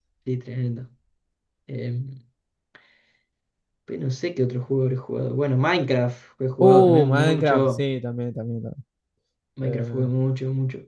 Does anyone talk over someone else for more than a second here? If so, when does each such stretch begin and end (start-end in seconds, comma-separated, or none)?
6.6-7.8